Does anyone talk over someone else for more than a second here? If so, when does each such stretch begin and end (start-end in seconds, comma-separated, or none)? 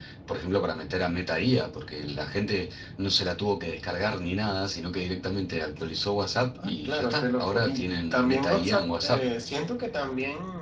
6.8-9.2